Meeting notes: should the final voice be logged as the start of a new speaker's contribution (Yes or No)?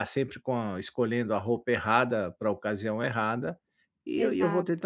No